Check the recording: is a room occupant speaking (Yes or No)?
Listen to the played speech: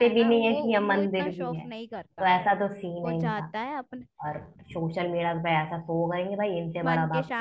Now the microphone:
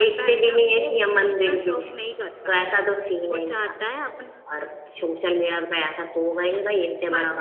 No